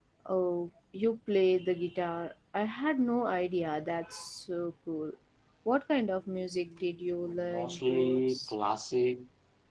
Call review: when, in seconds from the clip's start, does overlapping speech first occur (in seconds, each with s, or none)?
7.2 s